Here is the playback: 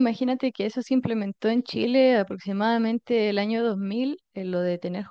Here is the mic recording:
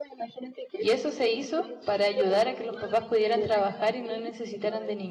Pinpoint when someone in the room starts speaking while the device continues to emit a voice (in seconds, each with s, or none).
0.8 s